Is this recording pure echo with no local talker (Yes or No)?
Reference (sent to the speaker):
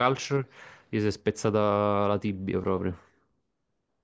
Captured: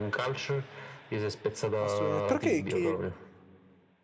No